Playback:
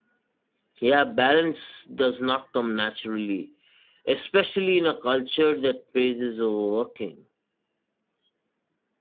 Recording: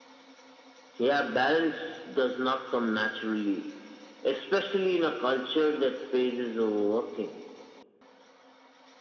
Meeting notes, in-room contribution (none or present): none